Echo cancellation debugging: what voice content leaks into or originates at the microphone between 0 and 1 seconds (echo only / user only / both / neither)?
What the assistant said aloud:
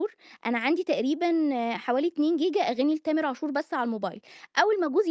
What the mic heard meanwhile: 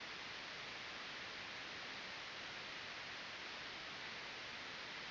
neither